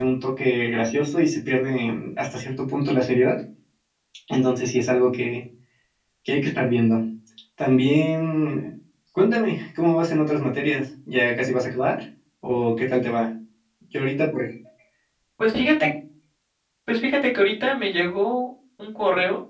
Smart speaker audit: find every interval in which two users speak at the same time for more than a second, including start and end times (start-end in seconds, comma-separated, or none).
none